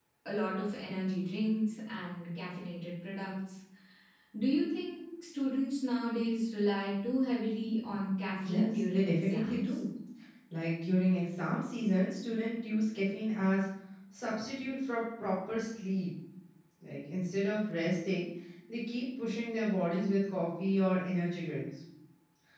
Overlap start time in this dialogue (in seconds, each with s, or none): 8.4 s